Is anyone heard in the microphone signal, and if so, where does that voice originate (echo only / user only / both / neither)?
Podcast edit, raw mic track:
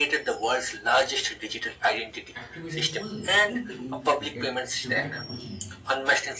both